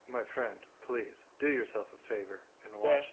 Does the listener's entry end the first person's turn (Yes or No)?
Yes